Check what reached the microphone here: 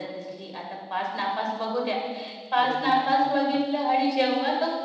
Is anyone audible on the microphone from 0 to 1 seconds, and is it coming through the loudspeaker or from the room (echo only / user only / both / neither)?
echo only